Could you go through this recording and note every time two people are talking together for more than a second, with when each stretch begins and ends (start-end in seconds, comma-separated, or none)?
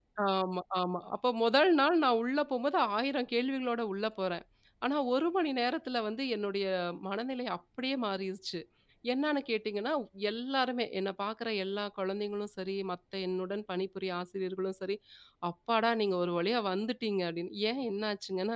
none